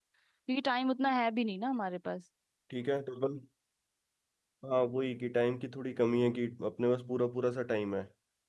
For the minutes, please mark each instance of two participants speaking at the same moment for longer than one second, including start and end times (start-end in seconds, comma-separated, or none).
none